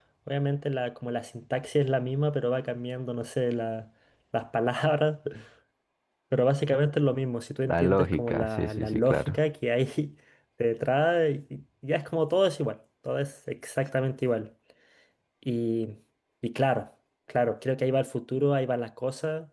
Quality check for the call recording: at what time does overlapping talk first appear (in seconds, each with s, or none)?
7.6 s